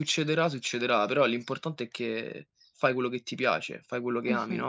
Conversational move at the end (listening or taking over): taking over